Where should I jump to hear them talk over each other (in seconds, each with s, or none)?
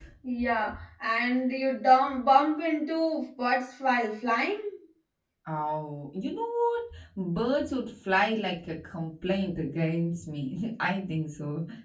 none